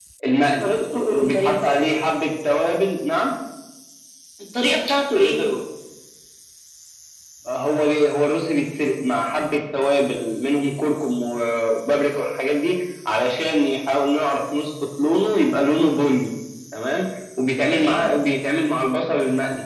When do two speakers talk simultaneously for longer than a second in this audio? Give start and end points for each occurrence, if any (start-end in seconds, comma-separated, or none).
none